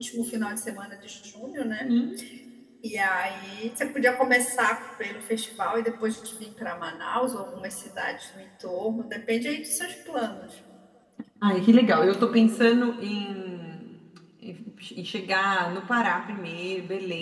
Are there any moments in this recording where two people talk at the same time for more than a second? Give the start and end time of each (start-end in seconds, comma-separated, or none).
none